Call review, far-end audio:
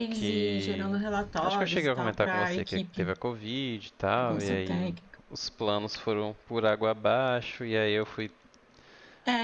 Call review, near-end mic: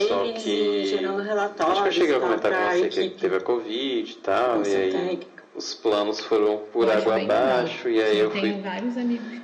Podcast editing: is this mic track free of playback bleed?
No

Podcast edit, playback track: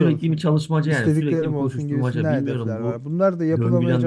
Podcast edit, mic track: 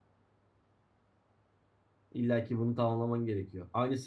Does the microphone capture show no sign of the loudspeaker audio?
Yes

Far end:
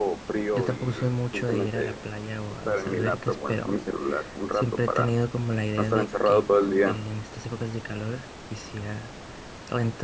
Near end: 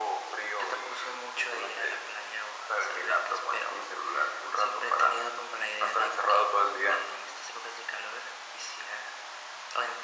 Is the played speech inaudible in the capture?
No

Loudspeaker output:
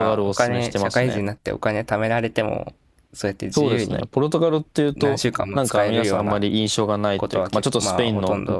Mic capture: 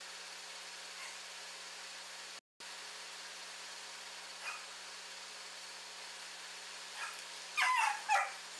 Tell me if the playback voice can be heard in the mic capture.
No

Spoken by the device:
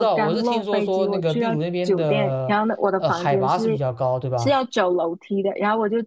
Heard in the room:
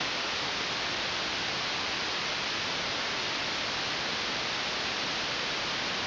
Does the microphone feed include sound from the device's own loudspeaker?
No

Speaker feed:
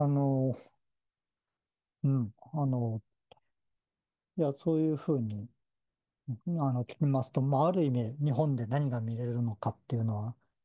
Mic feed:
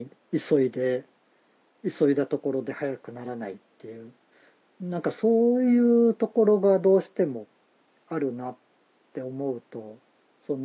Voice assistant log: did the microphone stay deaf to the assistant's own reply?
Yes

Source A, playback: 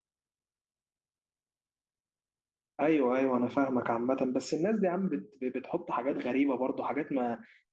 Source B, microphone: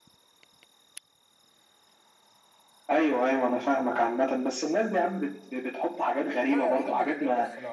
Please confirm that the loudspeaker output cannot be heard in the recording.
No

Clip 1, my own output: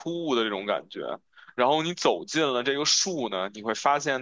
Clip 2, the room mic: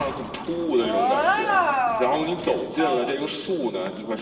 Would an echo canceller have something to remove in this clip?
Yes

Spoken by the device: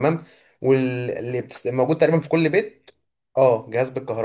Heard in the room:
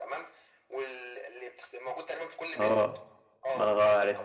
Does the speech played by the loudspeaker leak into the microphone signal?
Yes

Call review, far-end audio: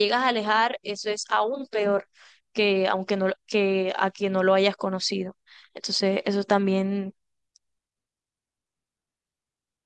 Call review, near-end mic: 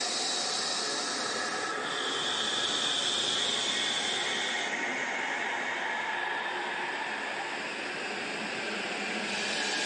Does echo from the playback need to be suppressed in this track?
No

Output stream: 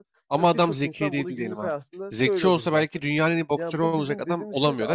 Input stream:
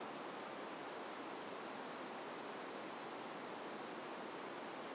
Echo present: No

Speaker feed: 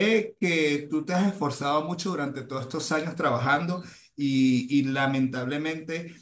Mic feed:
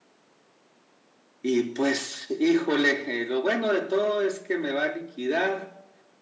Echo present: No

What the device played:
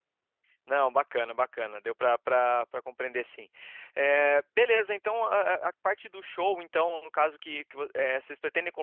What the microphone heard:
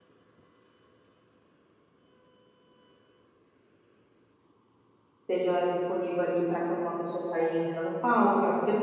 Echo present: No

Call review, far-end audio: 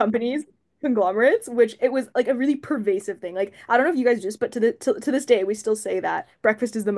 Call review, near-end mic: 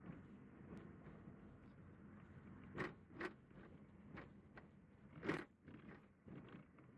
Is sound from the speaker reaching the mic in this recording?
No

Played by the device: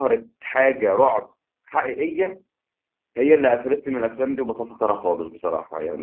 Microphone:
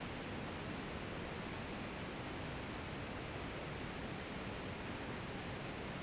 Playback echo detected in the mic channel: No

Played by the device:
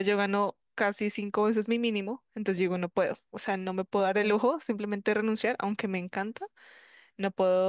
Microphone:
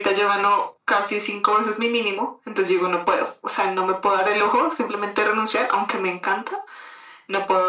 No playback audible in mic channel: No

